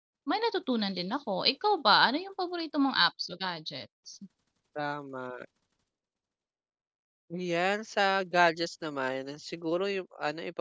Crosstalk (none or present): none